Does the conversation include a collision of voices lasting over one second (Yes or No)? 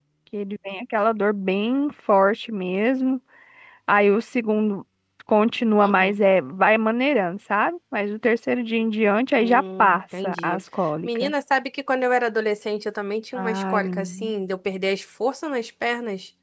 Yes